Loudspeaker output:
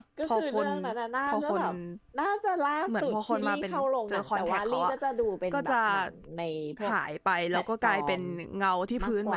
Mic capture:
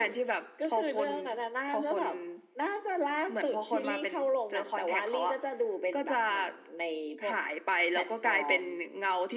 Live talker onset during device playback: none

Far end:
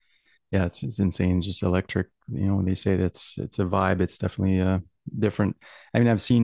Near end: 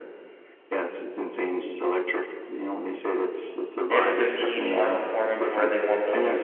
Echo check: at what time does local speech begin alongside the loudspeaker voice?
3.9 s

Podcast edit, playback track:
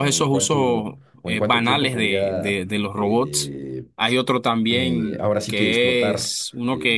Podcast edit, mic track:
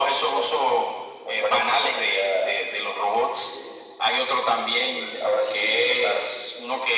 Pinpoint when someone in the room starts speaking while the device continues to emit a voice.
none

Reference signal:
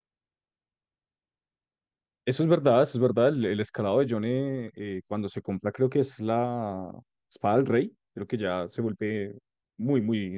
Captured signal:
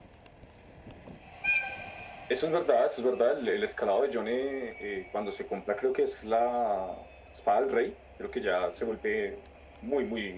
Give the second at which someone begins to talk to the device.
none

